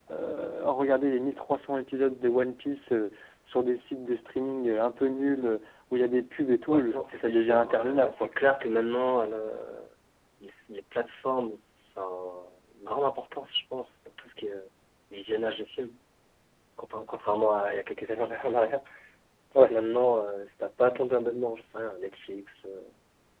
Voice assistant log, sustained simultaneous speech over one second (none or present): present